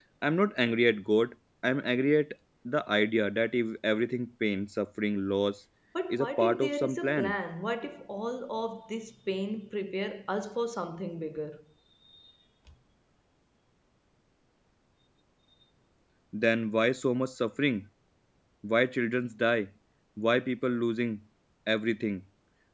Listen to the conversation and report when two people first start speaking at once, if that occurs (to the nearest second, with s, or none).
6 s